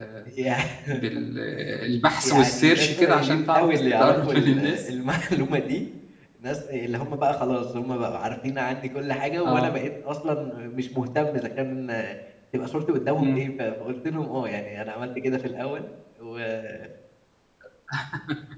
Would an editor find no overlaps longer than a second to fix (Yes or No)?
No